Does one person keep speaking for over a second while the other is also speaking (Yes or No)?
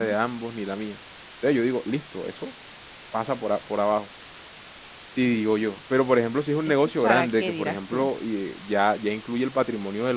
Yes